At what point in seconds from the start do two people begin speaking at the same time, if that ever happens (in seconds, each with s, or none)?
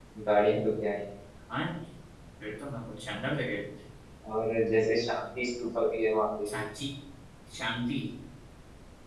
none